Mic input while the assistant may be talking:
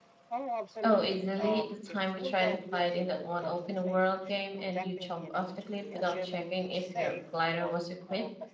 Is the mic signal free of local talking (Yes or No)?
No